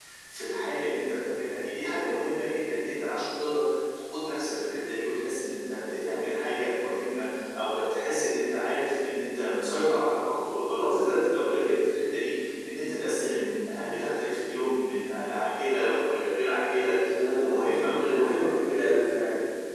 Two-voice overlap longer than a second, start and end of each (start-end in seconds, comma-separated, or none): 17.0-18.5